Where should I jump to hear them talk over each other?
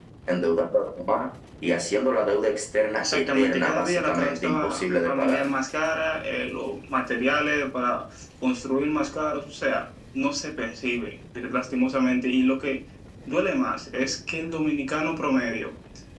3 s

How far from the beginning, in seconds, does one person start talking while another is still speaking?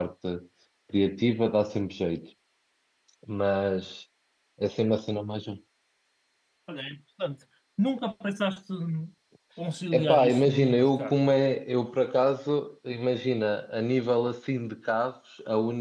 10 s

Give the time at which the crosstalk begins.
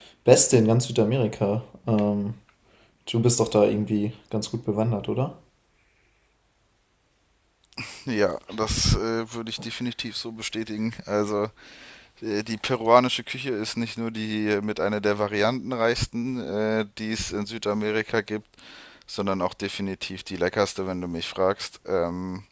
none

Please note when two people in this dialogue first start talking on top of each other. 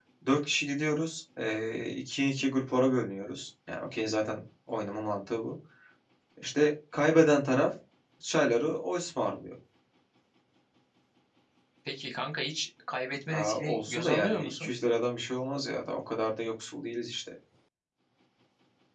13 s

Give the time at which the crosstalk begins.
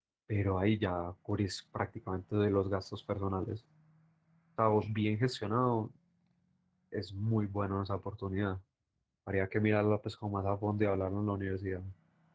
none

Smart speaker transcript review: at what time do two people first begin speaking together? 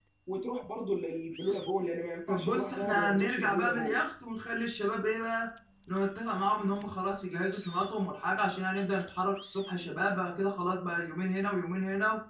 2 s

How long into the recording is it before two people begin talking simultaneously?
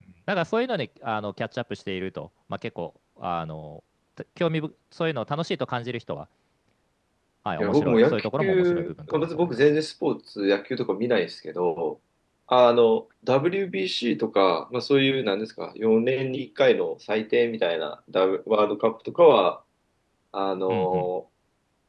8 s

